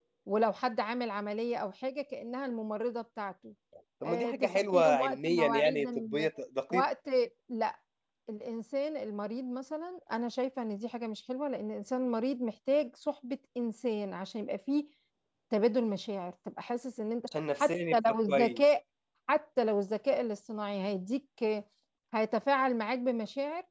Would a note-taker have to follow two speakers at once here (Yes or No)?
Yes